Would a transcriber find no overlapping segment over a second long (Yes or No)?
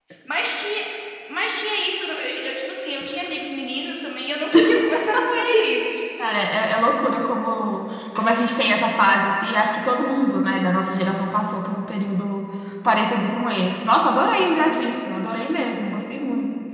Yes